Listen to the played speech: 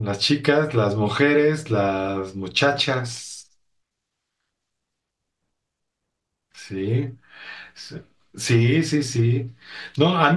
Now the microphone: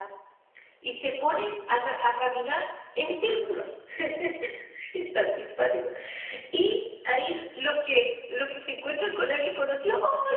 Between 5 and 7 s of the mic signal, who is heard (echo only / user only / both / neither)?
user only